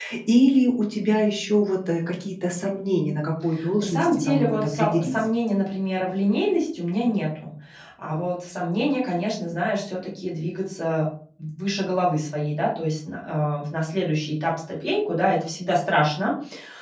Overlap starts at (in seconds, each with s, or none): 3.5 s